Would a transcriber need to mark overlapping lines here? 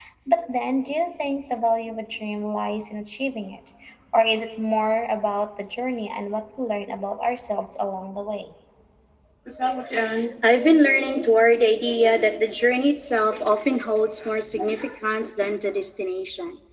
No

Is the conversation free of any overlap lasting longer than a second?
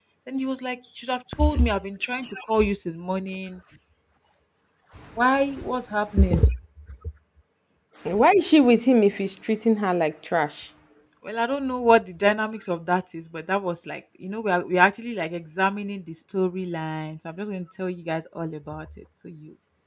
Yes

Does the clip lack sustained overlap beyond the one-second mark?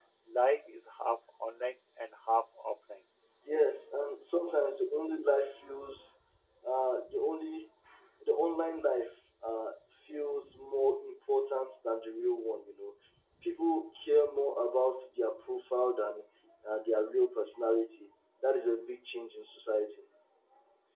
Yes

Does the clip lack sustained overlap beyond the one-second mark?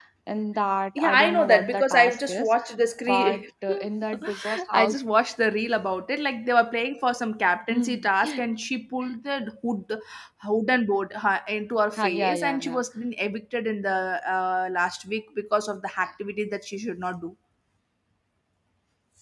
No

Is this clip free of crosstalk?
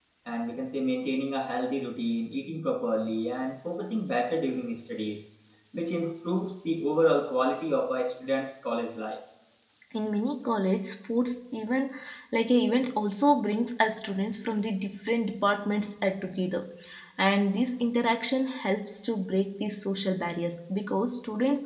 Yes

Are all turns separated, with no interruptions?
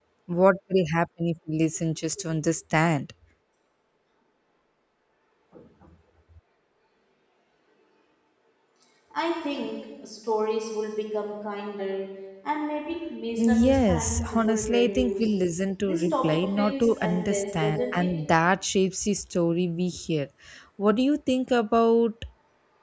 No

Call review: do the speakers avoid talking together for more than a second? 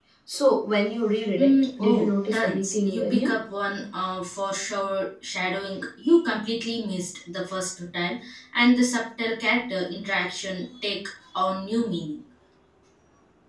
No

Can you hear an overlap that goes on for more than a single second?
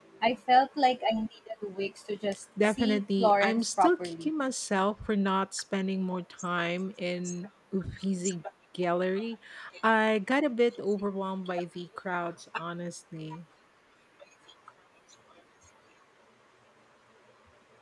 Yes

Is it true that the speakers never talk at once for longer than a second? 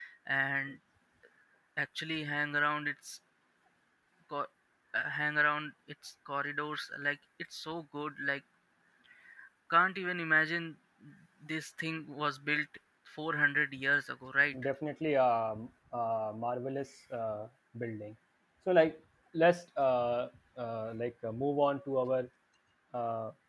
Yes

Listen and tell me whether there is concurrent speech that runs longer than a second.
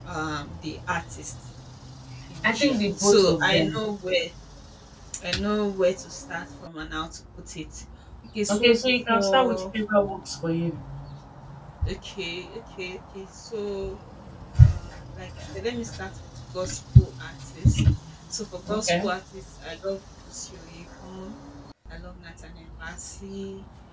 Yes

